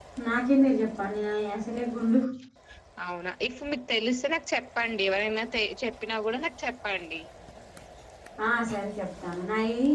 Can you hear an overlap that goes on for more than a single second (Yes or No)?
No